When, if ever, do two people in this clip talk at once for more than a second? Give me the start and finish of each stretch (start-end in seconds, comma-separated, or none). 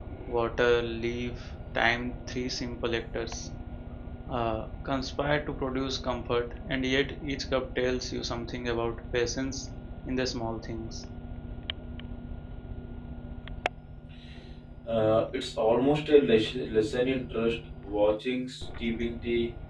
none